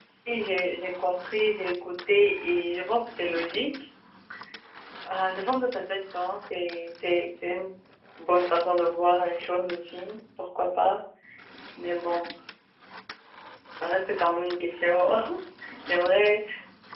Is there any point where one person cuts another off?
No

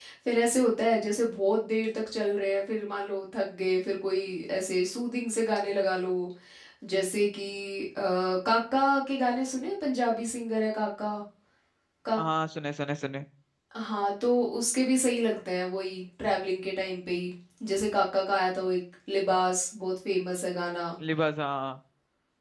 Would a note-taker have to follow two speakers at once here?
No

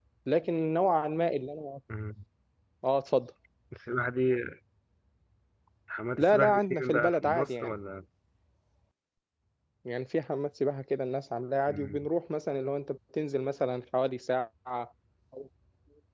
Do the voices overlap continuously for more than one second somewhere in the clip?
Yes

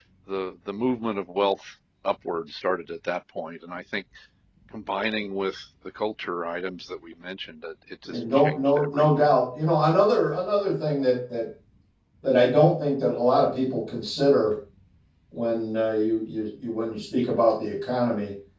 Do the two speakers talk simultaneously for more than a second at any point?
Yes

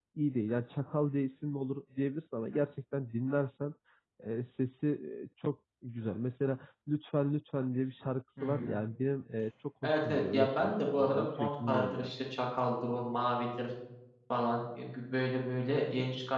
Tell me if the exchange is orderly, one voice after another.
No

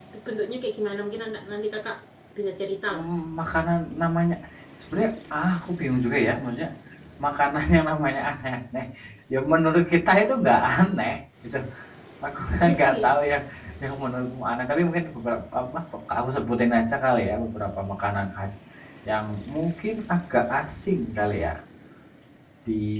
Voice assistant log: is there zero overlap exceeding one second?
Yes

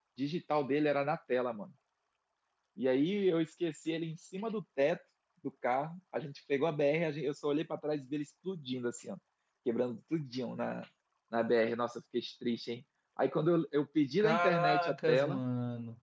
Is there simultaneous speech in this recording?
Yes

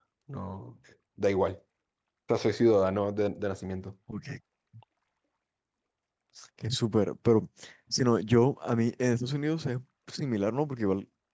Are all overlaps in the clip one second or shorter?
Yes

